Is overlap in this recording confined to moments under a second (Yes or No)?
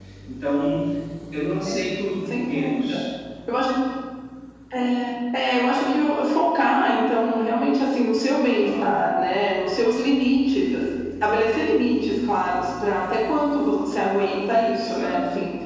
Yes